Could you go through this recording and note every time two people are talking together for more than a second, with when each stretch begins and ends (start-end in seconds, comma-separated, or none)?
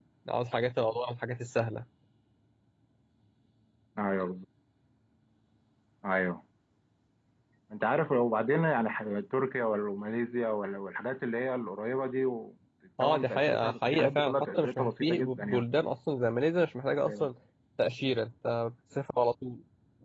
13.0-15.6